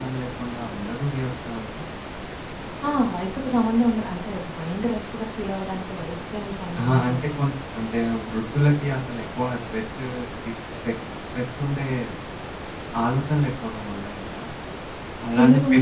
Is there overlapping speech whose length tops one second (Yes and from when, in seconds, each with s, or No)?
No